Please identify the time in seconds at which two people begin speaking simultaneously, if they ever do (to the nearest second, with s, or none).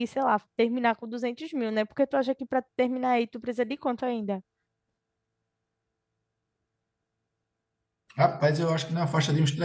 none